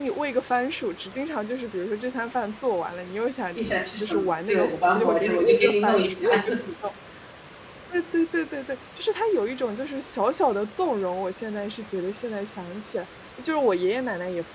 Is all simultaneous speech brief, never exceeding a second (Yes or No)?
No